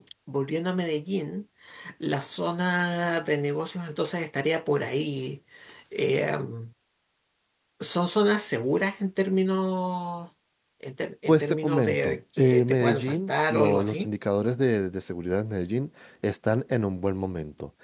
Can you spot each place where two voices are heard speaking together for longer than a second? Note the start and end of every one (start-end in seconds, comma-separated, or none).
11.3-14.1